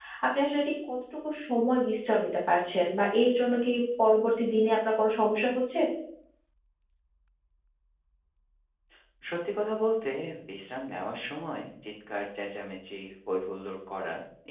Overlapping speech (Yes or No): No